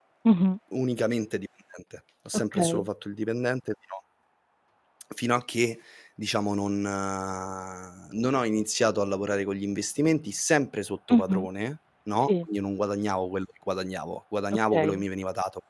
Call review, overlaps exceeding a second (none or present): none